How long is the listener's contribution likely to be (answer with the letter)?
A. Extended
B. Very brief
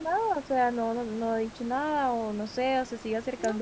B